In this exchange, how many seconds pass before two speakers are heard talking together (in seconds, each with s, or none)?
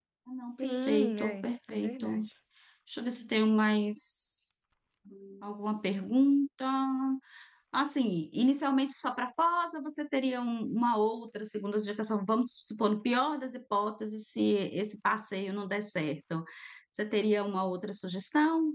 0.6 s